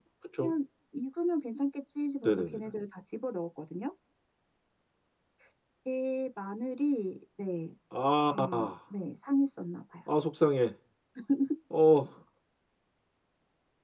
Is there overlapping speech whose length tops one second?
No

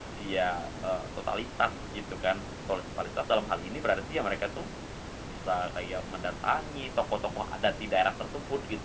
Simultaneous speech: No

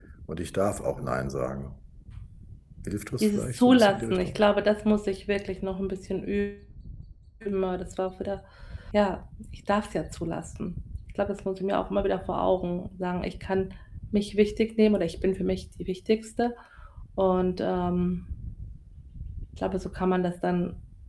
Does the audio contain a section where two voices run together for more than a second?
Yes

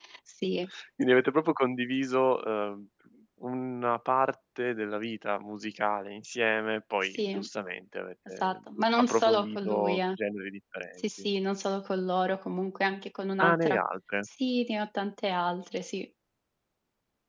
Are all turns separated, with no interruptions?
No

